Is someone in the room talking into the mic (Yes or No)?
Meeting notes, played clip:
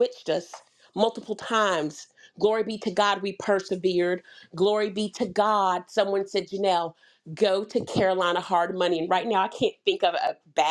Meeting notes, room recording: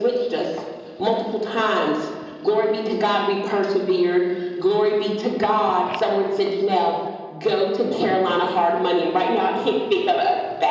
No